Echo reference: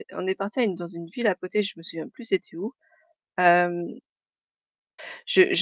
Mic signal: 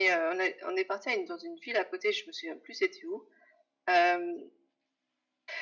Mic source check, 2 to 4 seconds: echo only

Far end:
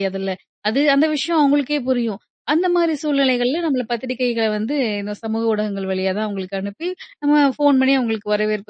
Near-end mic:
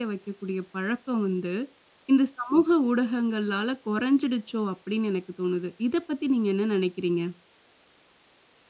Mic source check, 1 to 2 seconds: user only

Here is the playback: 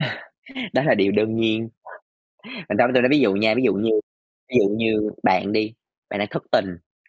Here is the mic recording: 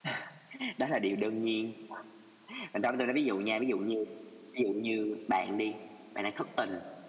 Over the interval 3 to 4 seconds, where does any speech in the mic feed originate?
echo only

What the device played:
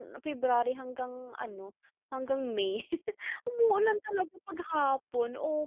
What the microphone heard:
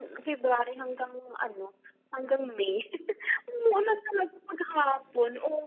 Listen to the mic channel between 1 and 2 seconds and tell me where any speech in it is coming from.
echo only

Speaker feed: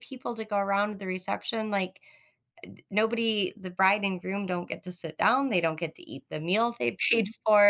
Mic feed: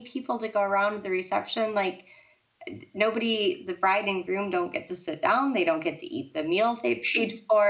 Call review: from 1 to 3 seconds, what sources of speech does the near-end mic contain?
echo only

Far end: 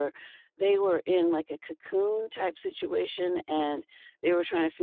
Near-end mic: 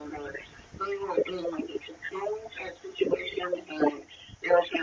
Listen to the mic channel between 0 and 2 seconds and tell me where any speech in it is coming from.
echo only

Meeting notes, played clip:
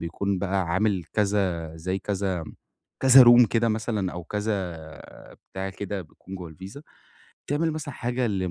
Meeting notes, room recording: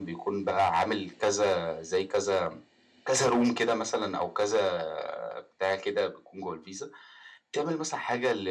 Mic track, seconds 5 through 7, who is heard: echo only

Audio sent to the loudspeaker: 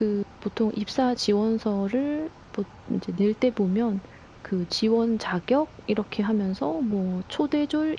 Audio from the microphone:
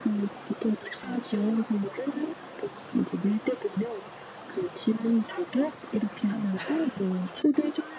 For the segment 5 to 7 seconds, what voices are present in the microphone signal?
echo only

